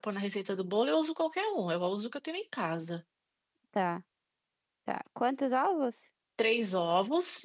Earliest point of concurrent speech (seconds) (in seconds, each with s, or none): none